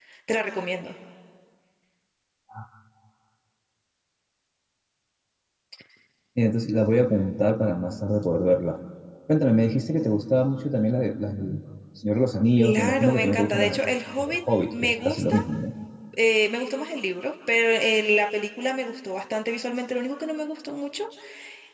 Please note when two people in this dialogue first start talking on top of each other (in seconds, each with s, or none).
12.6 s